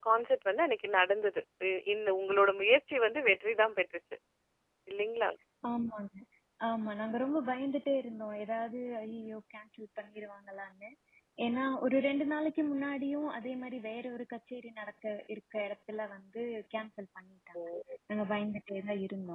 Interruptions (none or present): none